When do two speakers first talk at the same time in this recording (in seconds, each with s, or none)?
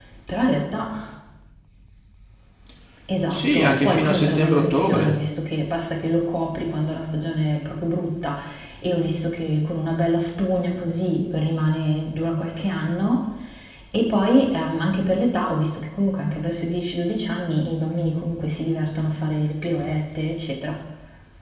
3.3 s